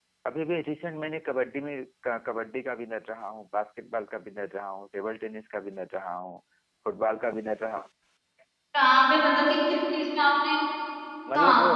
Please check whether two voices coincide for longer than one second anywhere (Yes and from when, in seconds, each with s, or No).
No